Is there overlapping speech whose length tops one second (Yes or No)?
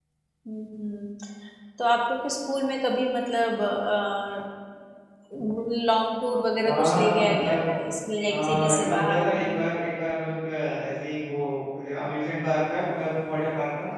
Yes